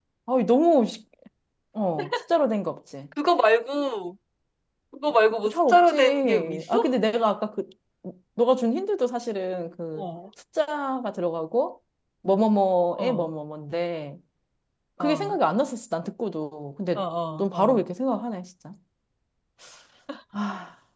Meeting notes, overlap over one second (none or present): present